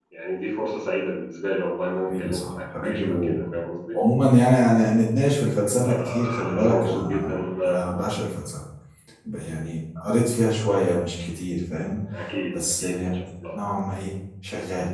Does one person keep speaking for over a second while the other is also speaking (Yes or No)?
Yes